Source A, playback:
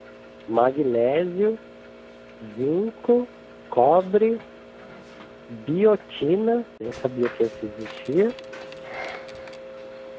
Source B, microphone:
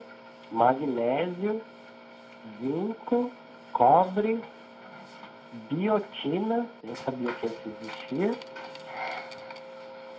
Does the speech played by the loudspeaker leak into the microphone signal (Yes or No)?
Yes